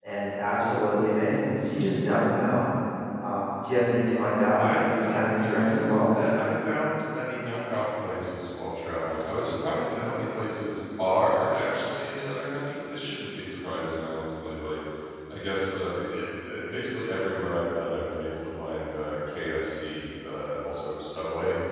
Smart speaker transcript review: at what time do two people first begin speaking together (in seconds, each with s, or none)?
4.5 s